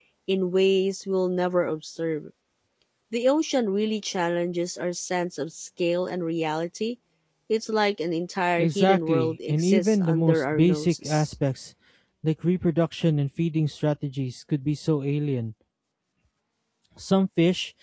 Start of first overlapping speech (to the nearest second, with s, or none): 9 s